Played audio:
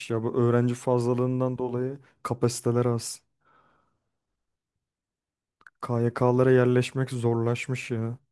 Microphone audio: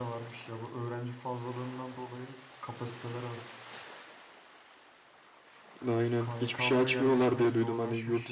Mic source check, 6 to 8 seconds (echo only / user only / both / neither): both